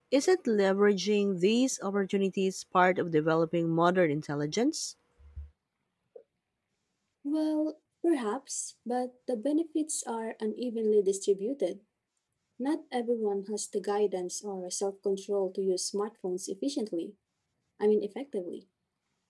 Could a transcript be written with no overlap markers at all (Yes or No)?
Yes